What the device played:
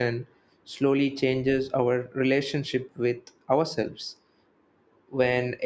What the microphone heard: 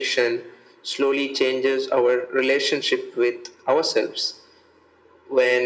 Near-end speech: none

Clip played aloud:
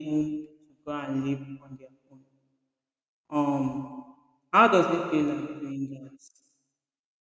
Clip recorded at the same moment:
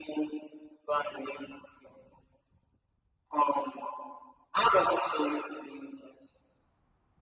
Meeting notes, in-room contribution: none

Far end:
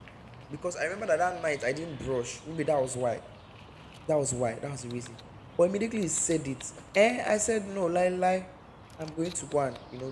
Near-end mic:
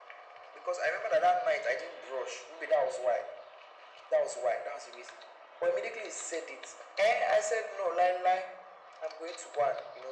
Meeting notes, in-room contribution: none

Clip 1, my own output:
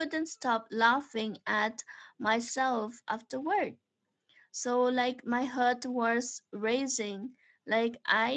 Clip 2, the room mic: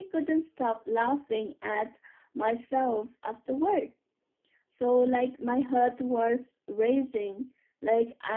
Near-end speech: none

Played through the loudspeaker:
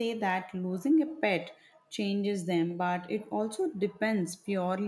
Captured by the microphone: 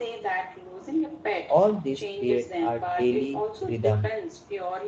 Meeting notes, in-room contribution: present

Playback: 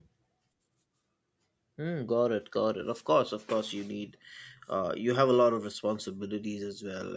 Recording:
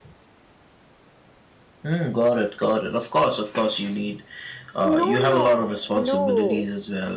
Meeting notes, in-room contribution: present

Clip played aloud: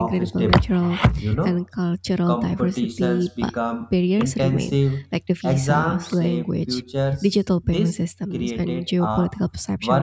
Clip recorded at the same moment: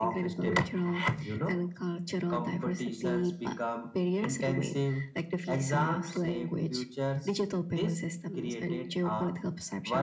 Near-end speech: none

